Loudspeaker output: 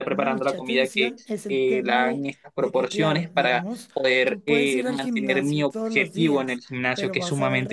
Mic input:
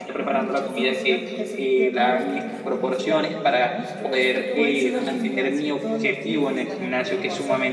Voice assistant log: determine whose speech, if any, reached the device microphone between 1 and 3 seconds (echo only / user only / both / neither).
both